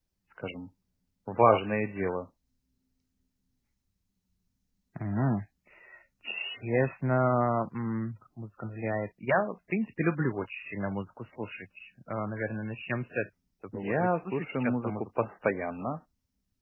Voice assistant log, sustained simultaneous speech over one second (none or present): present